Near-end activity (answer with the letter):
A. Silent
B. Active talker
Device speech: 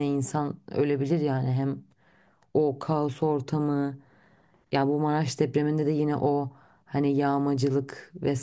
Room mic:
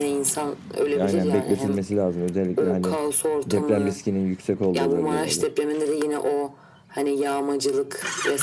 B